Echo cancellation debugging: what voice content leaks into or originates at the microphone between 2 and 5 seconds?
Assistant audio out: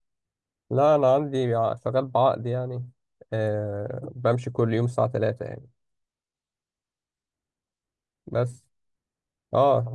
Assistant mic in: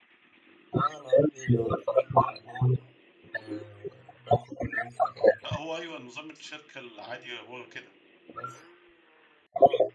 echo only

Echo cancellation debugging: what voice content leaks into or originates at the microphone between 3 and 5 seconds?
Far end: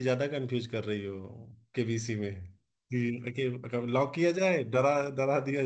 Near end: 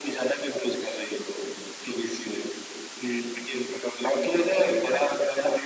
echo only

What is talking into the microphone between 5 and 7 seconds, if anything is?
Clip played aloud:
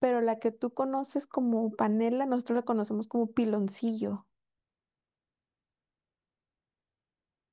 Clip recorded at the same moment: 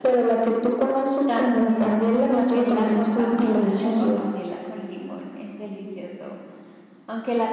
user only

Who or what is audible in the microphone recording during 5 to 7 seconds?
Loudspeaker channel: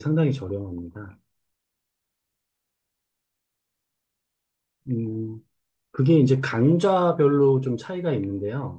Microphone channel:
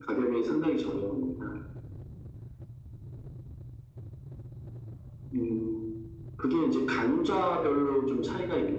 echo only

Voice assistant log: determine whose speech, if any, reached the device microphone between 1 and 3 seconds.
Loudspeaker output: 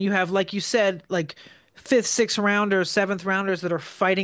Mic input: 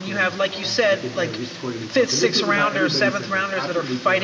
both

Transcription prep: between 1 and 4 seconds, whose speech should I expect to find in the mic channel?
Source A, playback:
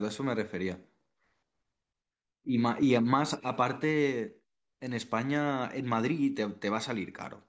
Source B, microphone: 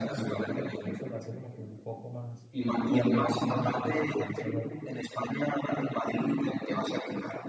both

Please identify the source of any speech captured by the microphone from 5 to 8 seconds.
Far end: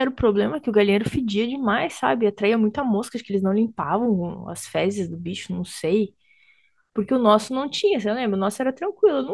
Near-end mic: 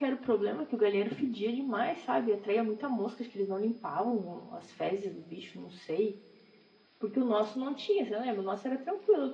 echo only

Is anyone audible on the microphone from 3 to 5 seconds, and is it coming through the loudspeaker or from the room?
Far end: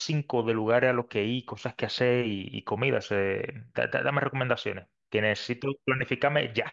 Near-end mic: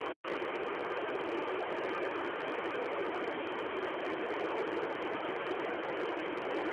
neither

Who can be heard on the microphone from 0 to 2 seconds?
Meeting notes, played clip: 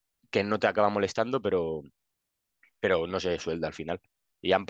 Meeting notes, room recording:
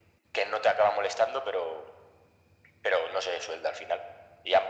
echo only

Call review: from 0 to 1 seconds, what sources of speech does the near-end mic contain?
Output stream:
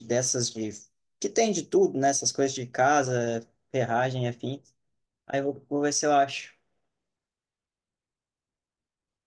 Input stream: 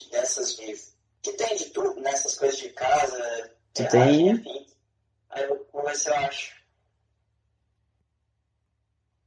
echo only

